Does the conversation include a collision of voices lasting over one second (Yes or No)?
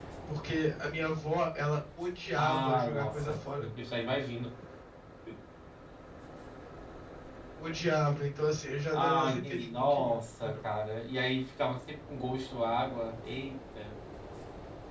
Yes